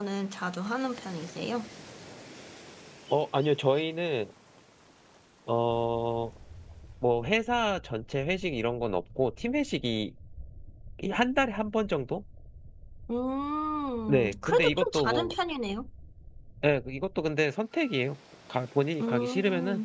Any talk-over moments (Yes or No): Yes